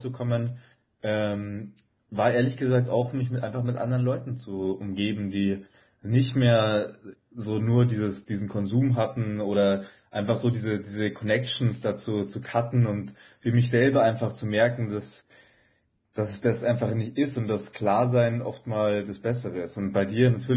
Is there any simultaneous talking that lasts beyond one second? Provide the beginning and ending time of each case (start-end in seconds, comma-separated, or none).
none